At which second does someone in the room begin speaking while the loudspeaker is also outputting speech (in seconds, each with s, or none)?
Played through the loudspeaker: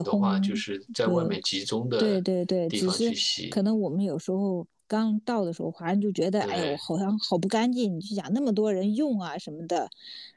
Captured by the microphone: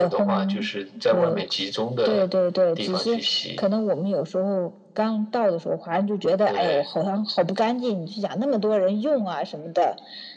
none